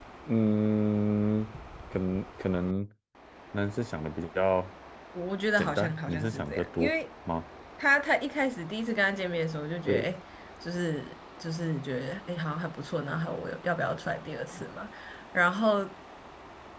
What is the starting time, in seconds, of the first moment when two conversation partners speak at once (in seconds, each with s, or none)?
5.6 s